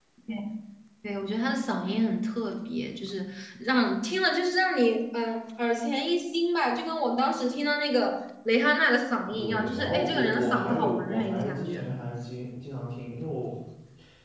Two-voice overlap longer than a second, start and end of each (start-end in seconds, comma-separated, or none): 9.3-11.9